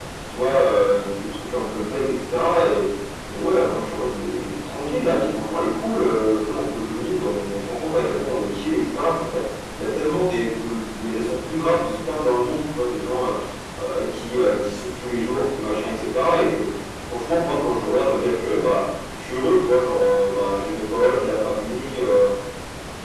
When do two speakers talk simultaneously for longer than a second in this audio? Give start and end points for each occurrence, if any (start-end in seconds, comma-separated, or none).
none